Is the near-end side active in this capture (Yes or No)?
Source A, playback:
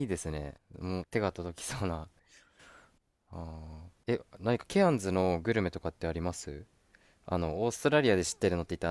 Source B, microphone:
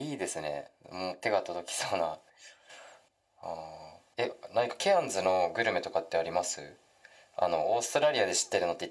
No